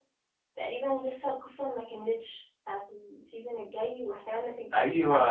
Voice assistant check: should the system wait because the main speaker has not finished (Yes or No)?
No